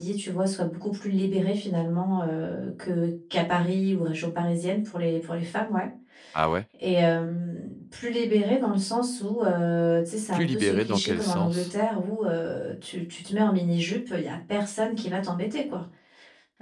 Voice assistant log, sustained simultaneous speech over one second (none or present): present